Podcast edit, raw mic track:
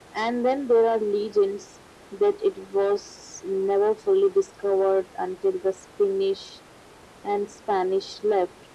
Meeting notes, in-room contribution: none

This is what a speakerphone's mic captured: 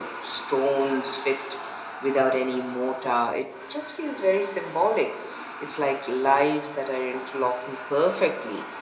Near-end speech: none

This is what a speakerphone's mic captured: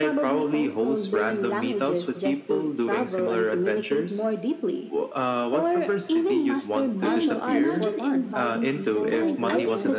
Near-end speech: present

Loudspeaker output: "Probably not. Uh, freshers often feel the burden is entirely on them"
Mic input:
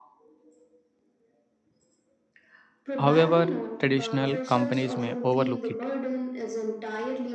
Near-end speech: present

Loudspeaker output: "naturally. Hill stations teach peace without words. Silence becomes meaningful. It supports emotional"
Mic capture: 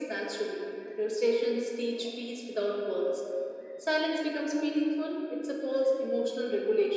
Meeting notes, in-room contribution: none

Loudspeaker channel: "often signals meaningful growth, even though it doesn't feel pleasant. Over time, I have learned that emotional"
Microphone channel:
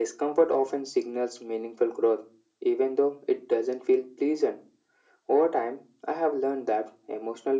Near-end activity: none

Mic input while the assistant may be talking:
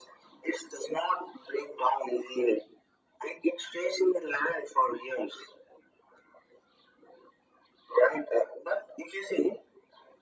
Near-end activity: none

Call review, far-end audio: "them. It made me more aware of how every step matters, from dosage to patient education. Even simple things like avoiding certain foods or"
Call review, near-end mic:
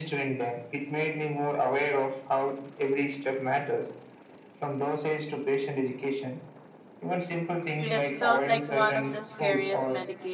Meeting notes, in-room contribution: present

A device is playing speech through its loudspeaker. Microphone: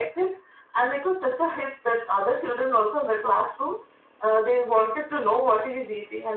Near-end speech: none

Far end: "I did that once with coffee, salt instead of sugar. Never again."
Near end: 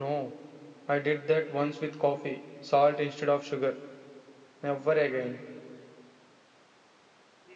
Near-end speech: none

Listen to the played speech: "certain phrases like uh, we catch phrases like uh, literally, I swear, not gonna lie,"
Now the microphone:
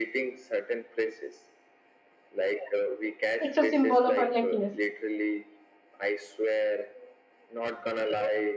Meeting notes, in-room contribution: present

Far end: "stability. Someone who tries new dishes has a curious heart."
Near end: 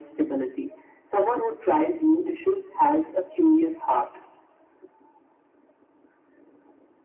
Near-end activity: none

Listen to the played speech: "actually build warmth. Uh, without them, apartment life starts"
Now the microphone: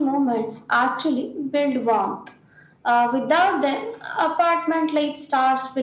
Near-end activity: none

